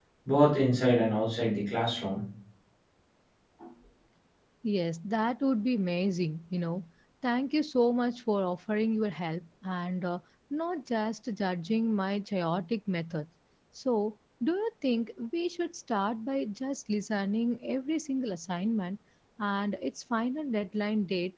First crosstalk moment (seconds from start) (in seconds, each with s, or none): none